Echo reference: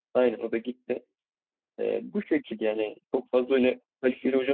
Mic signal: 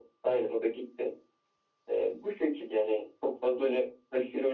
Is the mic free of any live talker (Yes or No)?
Yes